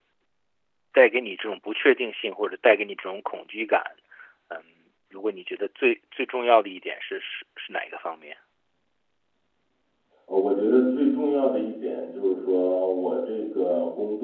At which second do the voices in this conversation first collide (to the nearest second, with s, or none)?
none